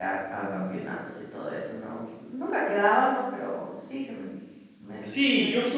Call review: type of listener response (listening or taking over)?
taking over